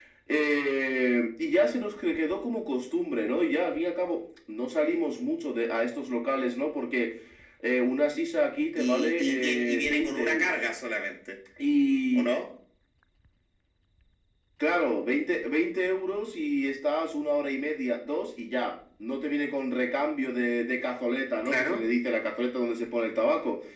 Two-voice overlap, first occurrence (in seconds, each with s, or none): 8.8 s